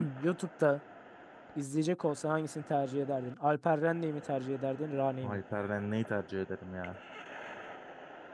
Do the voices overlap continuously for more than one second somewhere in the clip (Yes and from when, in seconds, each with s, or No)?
No